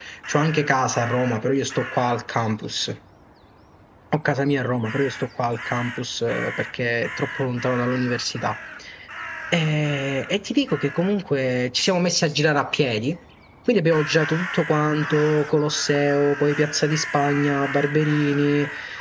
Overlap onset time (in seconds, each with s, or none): none